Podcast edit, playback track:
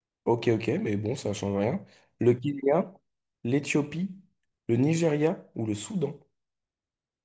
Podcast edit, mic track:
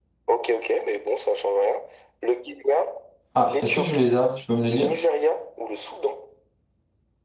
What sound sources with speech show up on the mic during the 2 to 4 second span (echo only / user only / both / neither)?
both